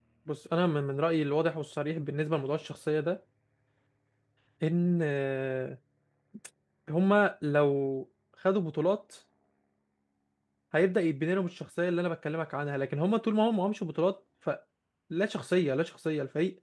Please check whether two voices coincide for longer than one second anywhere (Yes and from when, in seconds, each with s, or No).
No